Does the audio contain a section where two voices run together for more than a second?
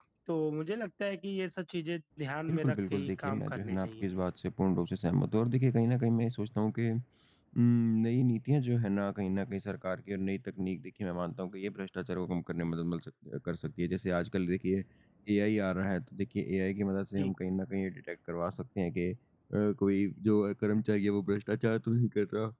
Yes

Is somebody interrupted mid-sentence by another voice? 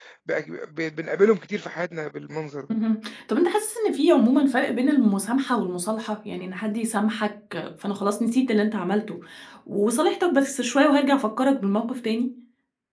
No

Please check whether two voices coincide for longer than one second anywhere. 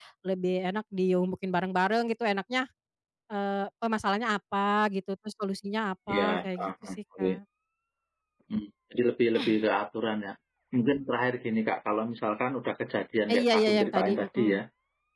Yes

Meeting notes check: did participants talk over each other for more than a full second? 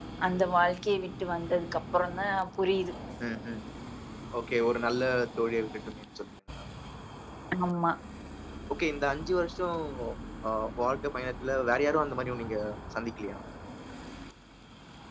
No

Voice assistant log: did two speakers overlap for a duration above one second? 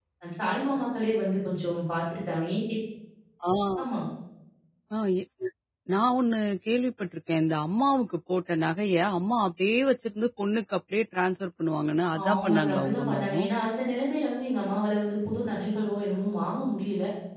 Yes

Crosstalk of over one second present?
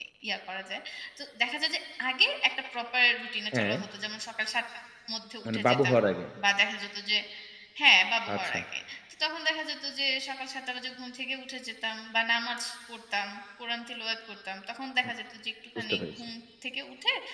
No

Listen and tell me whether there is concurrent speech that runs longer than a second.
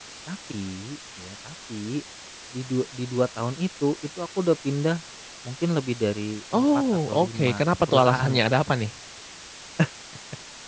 Yes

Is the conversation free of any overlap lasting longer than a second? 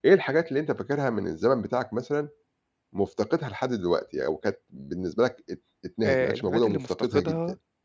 No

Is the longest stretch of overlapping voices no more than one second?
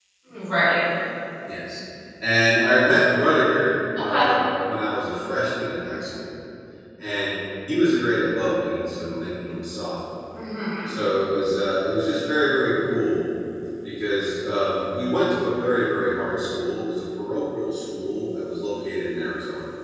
Yes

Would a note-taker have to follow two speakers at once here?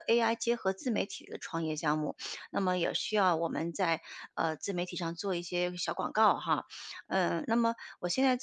No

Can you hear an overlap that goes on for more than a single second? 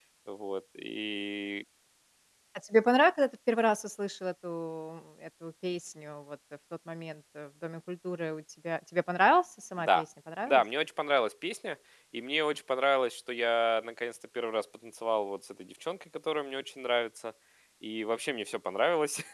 No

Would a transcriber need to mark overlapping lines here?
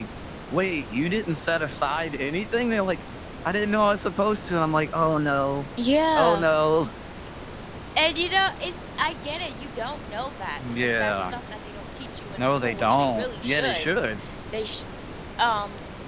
Yes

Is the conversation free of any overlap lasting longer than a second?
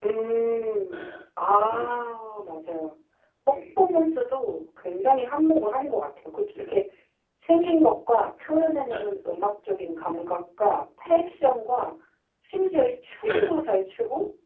Yes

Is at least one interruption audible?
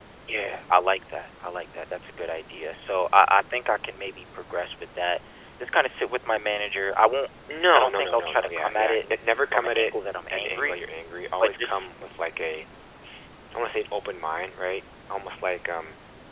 Yes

